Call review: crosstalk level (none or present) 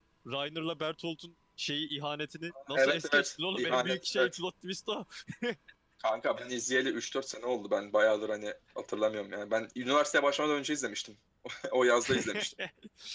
present